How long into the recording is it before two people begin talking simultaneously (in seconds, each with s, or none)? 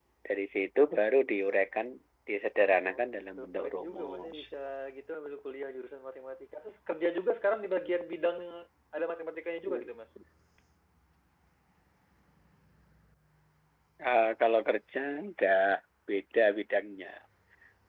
2.9 s